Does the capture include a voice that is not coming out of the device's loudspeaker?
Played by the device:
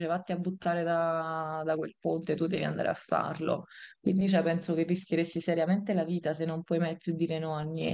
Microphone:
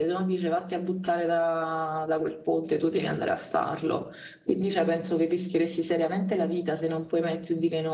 No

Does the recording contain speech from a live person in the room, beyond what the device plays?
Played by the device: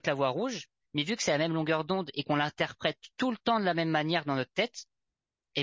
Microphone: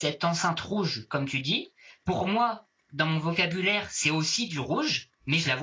Yes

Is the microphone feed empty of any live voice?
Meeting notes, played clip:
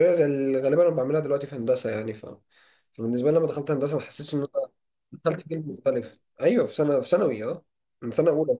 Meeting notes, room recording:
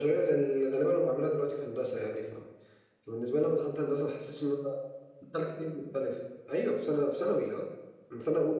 Yes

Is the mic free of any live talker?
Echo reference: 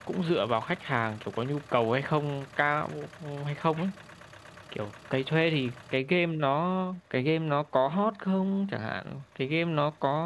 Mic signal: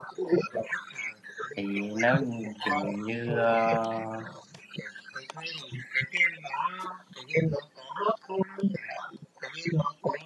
No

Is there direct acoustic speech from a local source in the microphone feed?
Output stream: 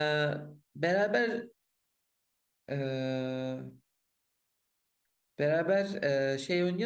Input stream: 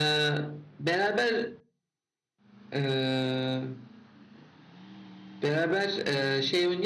No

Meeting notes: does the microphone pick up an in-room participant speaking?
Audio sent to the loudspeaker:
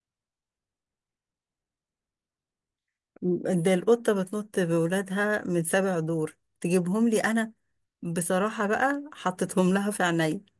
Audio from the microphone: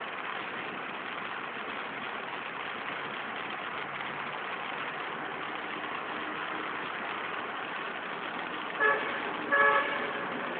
No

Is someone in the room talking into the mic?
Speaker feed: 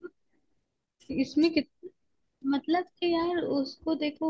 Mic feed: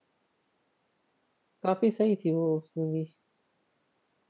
Yes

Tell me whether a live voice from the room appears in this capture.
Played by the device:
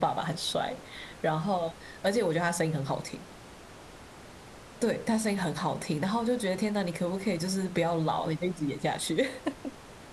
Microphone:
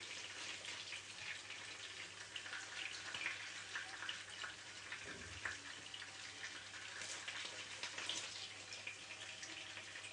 No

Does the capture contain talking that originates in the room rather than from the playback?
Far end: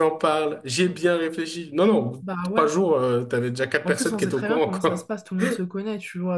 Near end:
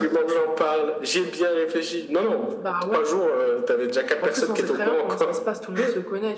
No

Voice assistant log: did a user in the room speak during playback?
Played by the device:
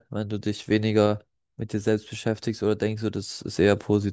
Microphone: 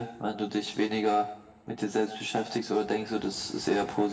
No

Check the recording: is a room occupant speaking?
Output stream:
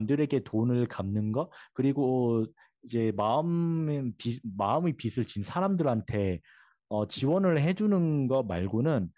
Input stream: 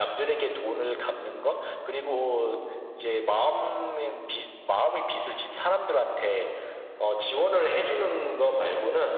No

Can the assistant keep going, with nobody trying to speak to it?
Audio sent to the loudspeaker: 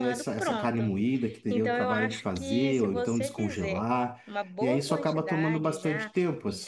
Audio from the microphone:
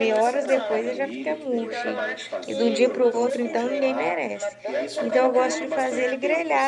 No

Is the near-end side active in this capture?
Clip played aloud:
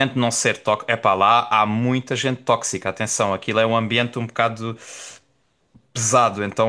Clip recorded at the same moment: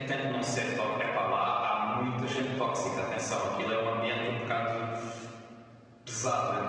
No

